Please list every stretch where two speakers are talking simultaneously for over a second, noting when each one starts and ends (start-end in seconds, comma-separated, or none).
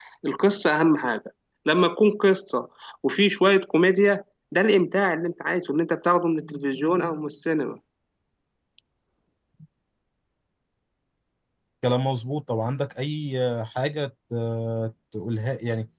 none